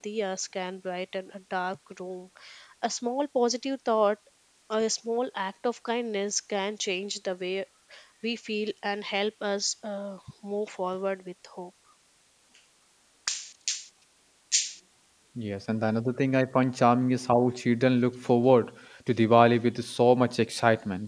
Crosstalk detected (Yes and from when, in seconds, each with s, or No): No